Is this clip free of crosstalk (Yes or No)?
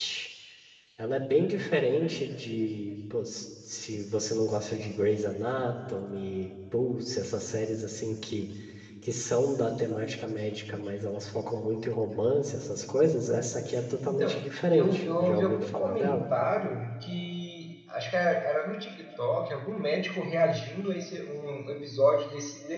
No